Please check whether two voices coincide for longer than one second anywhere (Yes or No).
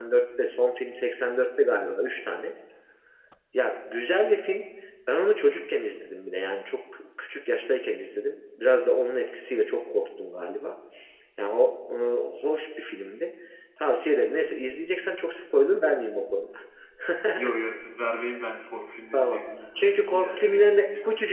Yes